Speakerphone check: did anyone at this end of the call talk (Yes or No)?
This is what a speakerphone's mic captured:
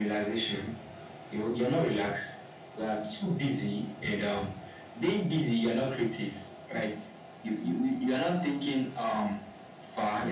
No